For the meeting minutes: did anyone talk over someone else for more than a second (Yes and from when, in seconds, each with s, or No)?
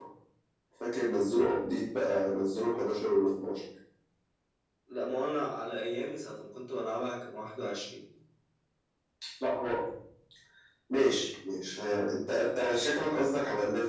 No